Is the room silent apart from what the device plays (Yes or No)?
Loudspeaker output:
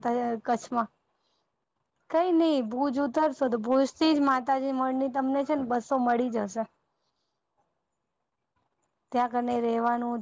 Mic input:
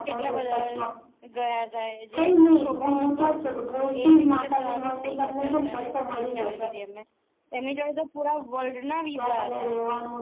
No